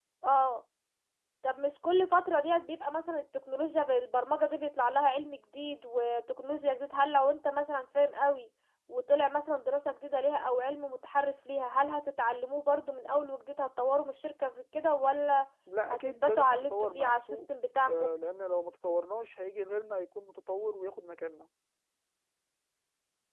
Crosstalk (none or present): present